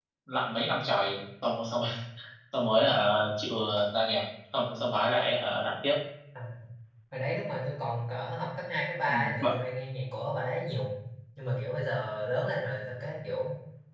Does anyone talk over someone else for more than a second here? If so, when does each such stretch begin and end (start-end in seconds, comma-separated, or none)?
none